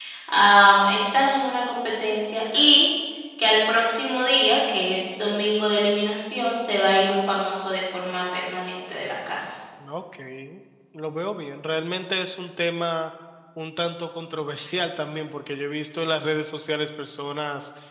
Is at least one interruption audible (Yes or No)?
No